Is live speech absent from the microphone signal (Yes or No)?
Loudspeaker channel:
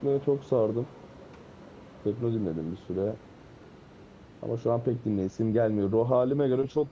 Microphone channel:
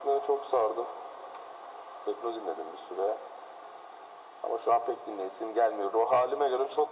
Yes